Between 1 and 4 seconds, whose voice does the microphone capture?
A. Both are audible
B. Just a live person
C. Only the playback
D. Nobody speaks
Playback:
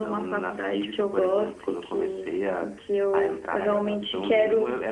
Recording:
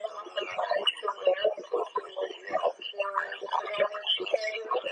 C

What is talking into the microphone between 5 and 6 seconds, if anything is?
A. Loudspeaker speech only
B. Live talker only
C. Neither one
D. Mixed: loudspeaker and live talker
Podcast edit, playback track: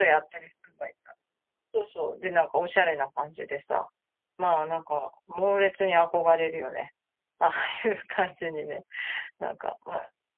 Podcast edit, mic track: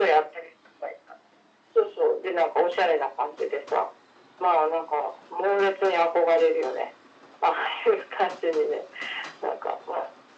A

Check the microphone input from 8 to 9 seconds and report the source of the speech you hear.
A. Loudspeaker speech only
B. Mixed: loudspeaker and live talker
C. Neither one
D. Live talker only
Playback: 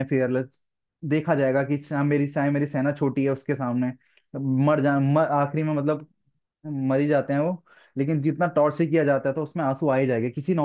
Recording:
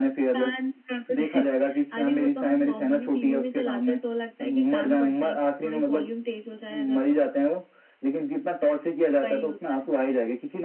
A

